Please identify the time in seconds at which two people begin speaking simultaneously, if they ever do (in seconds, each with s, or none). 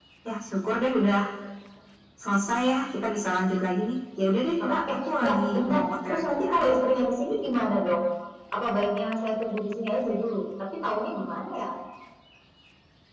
4.6 s